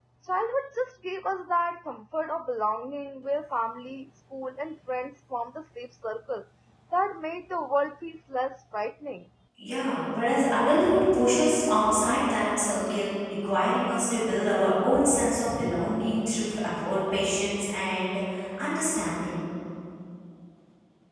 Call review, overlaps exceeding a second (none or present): none